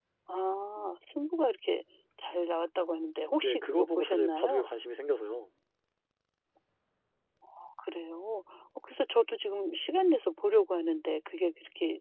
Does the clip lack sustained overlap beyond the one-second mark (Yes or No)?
No